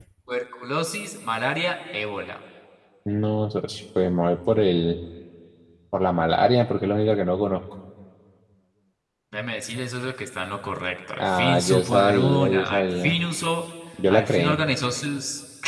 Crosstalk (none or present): present